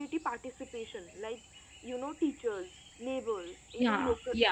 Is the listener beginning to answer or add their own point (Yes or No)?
No